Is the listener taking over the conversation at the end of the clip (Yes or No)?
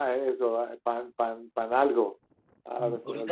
Yes